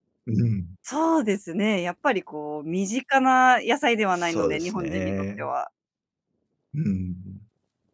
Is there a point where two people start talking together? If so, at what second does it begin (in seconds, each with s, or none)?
4.1 s